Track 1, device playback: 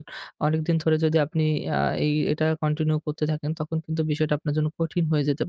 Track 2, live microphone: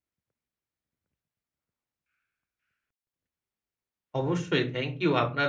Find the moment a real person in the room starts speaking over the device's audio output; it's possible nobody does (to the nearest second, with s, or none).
4 s